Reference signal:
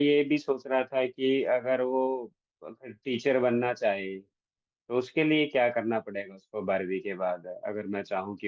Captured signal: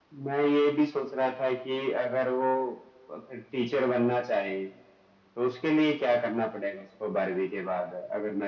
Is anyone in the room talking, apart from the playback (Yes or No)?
No